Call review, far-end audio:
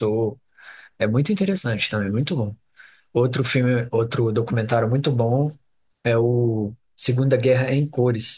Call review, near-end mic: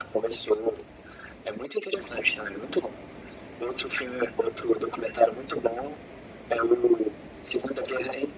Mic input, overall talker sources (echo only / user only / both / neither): echo only